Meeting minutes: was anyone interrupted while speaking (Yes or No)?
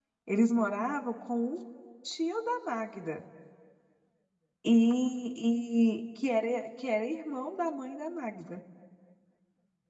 No